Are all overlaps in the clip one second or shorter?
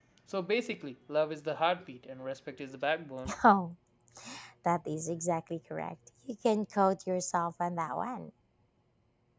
Yes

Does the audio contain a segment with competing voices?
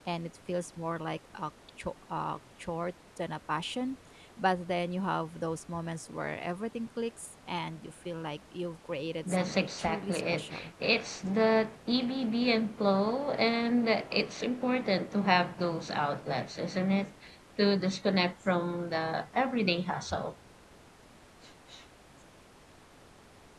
Yes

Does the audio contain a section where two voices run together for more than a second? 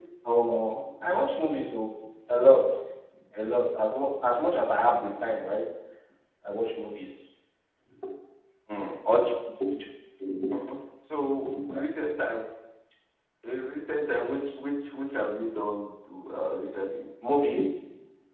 No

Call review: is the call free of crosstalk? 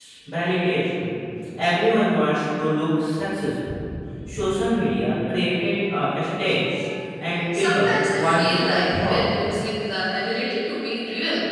No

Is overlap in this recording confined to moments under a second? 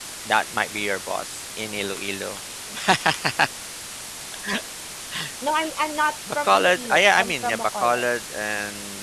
No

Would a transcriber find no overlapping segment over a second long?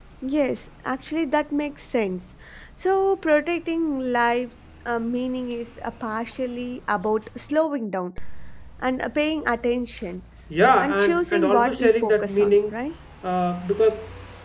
No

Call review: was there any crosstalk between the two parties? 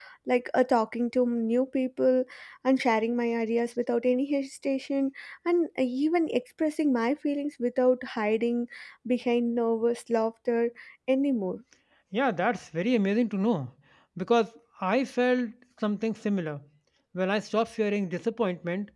No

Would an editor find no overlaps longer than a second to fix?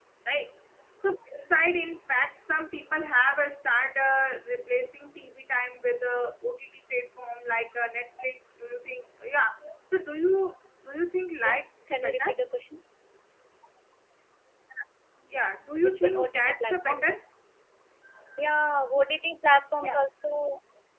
No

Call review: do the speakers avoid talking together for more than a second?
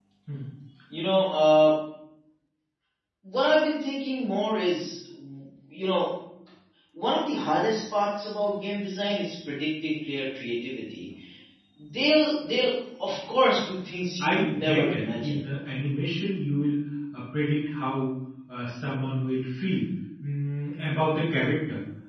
No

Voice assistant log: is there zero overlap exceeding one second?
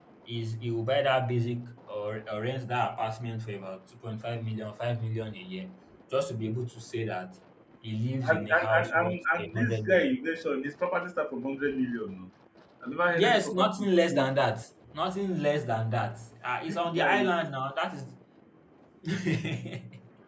No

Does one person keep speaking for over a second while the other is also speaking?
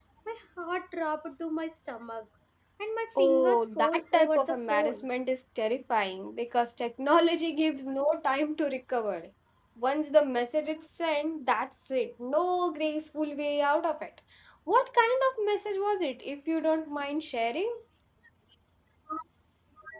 Yes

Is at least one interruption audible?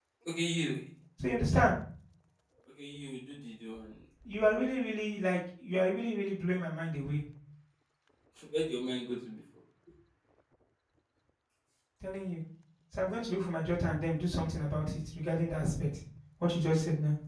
No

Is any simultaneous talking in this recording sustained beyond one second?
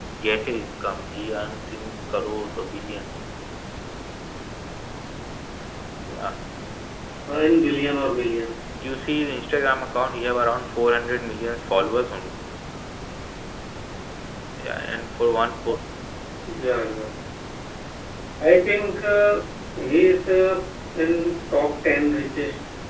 No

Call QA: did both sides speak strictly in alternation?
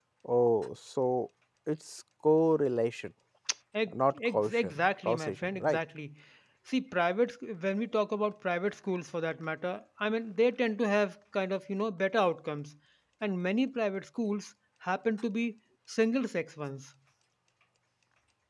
No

